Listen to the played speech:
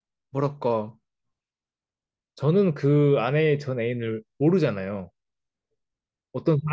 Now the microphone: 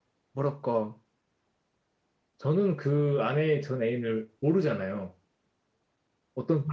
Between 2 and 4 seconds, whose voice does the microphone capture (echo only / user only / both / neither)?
echo only